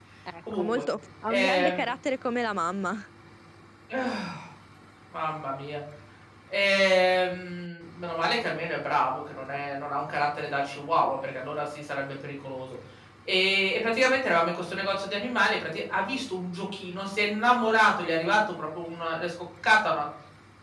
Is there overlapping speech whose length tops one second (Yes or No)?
No